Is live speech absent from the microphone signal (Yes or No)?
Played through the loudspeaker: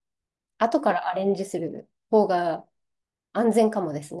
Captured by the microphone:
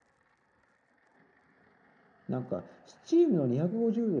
No